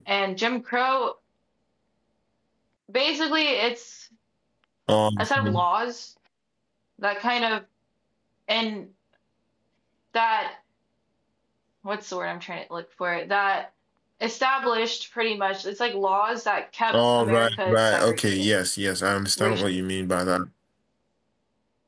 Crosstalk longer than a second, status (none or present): present